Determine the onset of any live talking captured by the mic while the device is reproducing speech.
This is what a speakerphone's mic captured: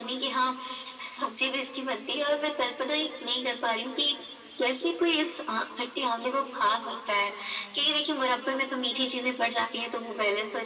none

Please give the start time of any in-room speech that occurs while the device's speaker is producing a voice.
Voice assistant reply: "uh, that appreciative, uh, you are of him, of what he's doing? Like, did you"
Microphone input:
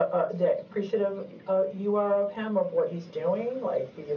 none

